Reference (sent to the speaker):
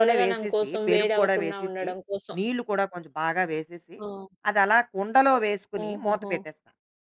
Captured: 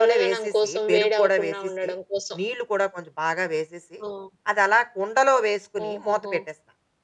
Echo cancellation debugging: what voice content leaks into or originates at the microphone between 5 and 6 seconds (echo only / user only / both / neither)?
echo only